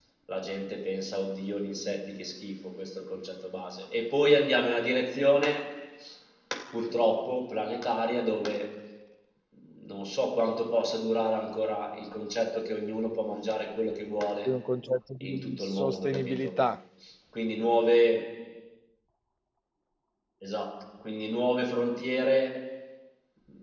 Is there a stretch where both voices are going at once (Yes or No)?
Yes